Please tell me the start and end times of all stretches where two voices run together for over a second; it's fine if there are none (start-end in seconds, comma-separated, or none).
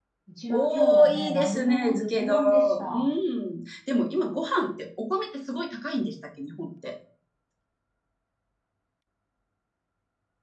0.5-2.9